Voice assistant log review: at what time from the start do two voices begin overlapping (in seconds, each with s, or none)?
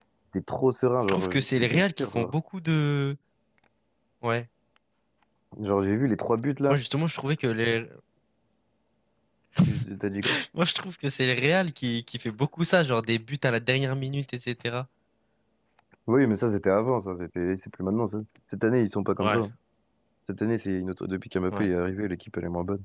1.1 s